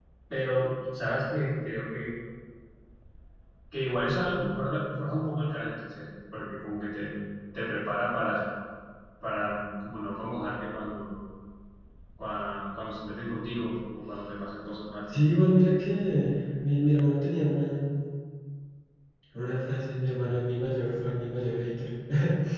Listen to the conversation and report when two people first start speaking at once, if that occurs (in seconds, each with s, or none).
none